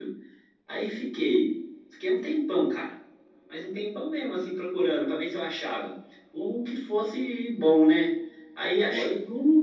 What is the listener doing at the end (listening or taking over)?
listening